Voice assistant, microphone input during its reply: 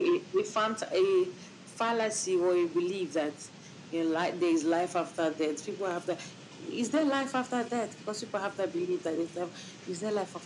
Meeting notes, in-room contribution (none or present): none